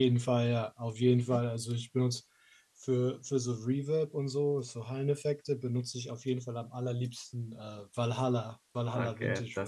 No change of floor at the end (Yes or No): No